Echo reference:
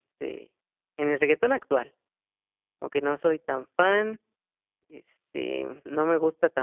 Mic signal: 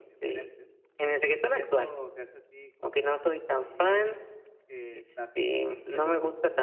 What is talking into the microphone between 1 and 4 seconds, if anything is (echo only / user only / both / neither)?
both